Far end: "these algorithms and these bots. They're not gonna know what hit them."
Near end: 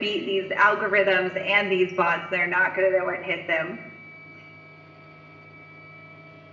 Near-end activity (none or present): none